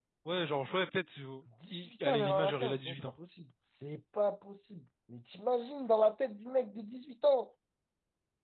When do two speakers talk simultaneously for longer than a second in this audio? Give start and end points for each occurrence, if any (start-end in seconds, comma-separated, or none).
1.7-3.0